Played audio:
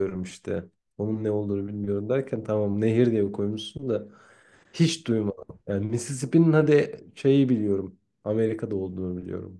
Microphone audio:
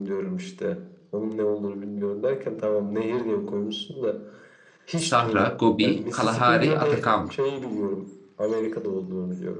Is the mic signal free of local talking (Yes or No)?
No